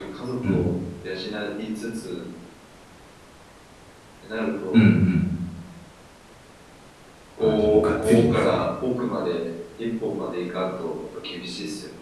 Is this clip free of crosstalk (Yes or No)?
No